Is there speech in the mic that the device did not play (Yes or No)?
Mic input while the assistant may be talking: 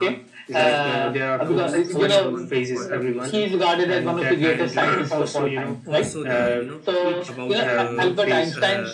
Yes